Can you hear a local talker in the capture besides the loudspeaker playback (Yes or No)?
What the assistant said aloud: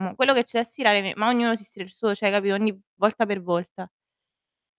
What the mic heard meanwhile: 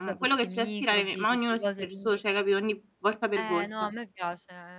Yes